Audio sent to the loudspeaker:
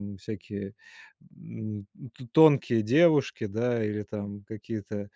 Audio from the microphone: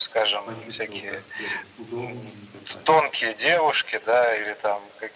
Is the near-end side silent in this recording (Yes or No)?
No